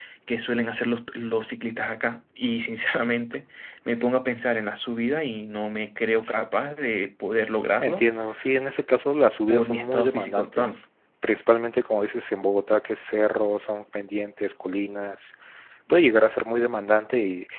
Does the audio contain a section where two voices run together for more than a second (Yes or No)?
Yes